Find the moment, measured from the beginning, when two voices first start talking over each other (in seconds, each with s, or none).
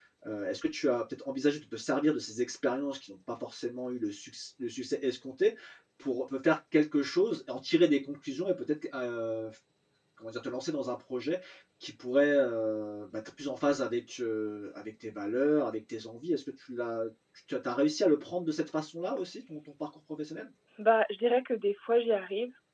none